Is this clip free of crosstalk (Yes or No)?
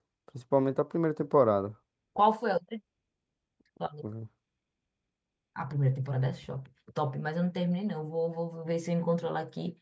Yes